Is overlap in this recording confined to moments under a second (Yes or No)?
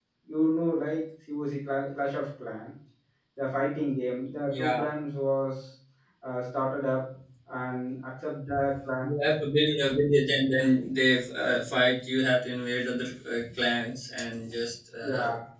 Yes